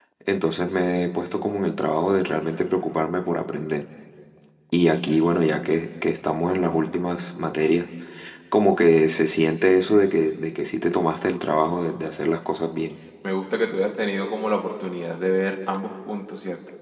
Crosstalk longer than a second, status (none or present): none